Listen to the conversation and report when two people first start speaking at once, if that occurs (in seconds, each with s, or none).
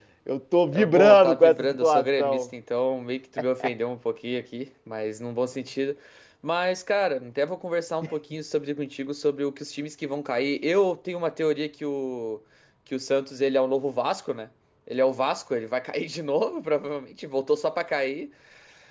0.7 s